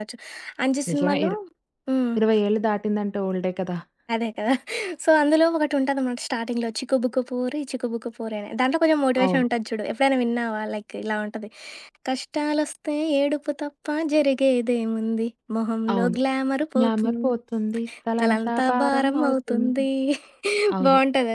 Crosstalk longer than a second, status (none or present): present